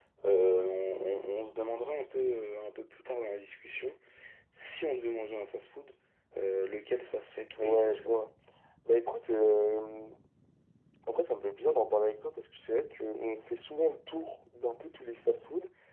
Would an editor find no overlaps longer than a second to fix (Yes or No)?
Yes